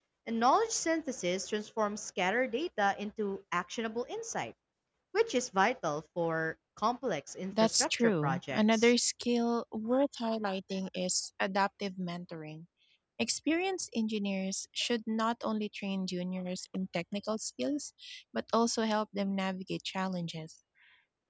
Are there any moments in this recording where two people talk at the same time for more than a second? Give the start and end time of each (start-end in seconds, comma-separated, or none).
7.6-8.9